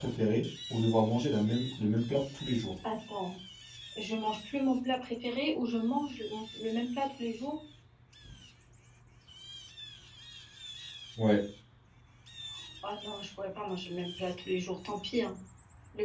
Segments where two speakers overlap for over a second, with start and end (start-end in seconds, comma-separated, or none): none